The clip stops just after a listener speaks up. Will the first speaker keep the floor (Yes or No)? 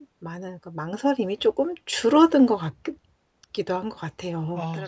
No